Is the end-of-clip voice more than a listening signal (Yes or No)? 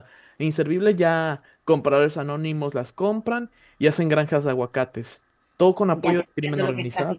Yes